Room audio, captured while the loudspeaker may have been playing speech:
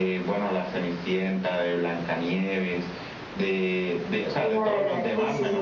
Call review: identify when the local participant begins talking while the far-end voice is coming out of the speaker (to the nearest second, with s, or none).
4 s